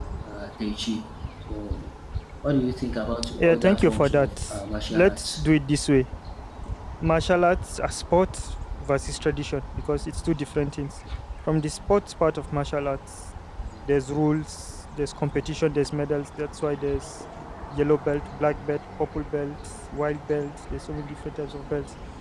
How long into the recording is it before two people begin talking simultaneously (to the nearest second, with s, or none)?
3 s